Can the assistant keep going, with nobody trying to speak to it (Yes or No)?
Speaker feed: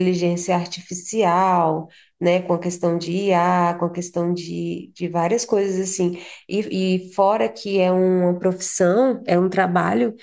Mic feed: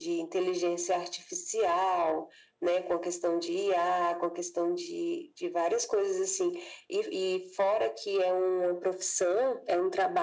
Yes